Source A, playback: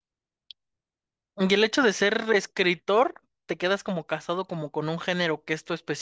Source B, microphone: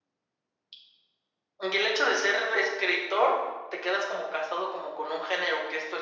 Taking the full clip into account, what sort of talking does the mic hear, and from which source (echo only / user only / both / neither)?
echo only